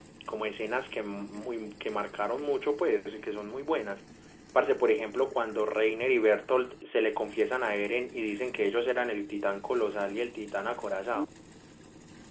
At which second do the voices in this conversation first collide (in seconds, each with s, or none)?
none